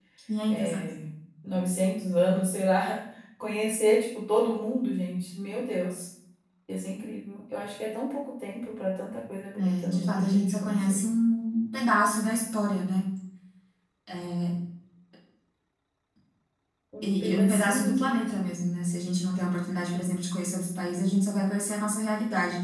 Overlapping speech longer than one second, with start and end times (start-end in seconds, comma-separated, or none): 9.6-11.0, 17.0-18.6